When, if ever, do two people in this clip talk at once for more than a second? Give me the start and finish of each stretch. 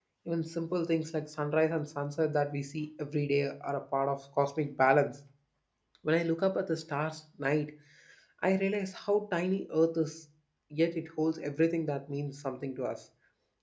none

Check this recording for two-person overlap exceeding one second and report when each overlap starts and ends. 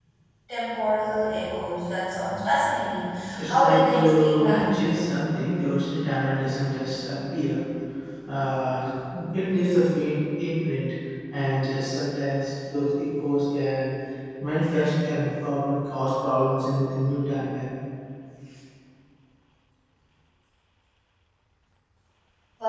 3.5-4.7

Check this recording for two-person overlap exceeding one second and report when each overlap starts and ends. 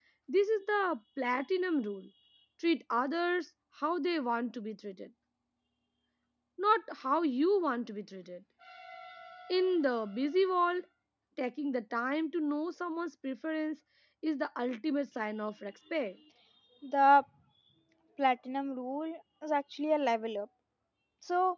none

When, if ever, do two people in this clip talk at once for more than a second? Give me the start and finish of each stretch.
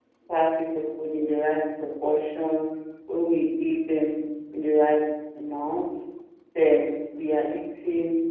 none

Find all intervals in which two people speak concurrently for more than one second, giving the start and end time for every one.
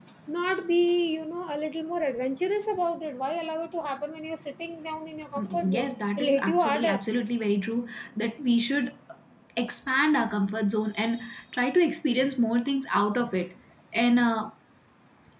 5.3-7.0

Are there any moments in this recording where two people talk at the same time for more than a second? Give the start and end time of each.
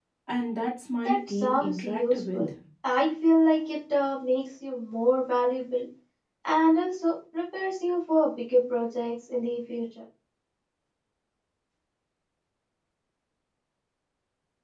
1.1-2.5

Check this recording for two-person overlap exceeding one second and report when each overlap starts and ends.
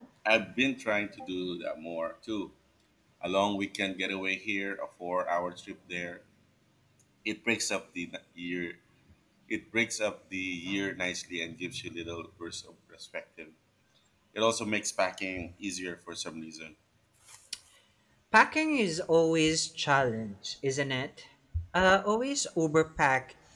none

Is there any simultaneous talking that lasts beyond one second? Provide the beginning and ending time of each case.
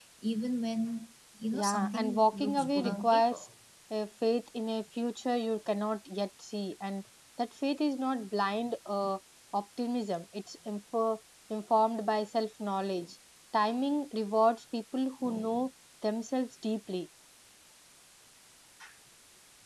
1.5-3.4

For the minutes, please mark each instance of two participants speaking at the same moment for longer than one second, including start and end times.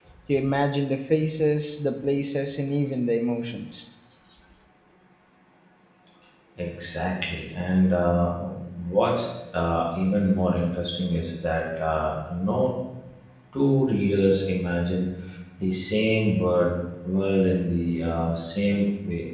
none

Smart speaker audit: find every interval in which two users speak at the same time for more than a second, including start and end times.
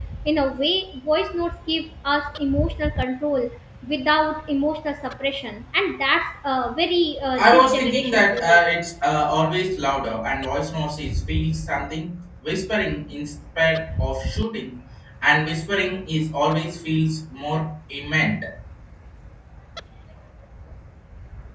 7.4-8.6

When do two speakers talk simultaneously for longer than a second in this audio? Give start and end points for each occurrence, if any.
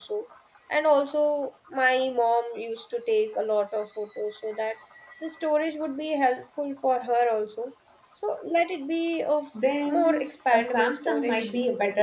9.9-11.5

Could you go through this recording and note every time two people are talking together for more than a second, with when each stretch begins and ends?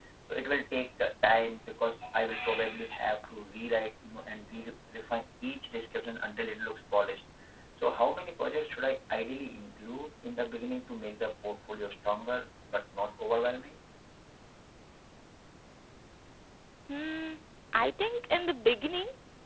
none

